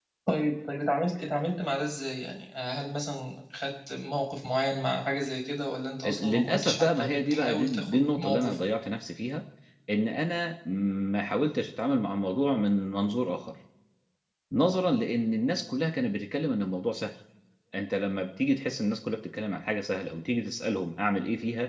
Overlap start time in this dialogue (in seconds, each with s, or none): 6.0 s